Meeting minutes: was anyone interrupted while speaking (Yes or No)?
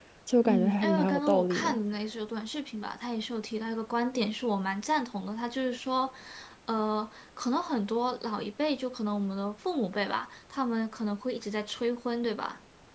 Yes